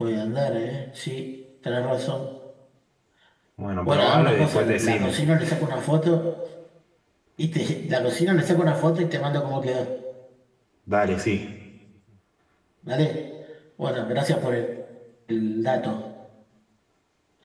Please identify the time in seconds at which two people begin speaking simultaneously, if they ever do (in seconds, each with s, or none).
3.8 s